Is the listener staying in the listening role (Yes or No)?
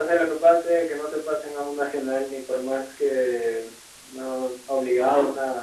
No